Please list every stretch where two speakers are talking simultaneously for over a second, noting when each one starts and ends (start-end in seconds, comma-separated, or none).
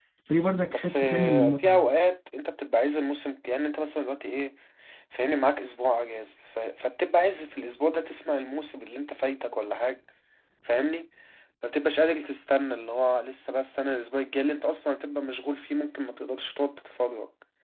0.7-1.9